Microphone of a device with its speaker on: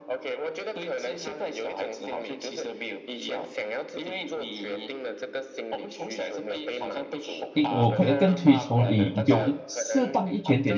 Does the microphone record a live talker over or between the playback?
Yes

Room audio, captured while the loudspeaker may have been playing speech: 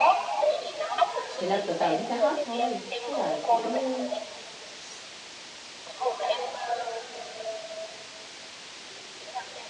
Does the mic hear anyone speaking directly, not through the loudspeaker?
Yes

